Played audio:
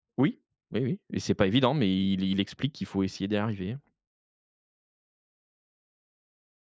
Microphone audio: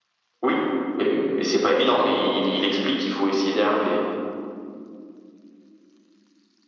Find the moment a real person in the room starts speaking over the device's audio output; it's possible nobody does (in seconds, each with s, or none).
none